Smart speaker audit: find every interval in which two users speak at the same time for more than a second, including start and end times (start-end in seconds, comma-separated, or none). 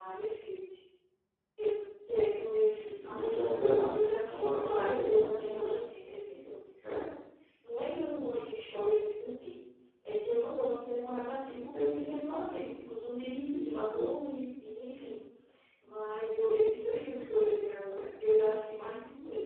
3.6-5.7